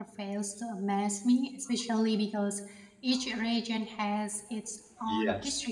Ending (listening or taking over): listening